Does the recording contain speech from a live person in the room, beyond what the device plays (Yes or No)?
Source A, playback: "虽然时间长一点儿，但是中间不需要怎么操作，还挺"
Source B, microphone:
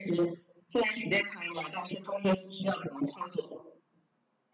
No